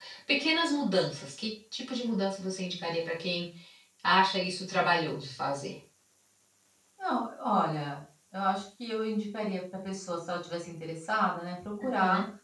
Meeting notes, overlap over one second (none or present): none